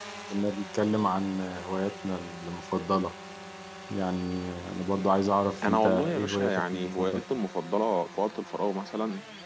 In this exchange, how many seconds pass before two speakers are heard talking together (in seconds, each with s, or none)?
5.6 s